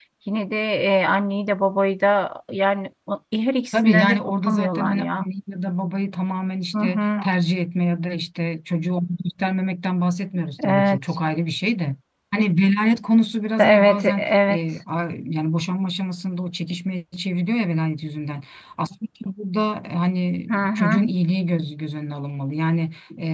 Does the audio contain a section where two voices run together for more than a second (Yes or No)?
Yes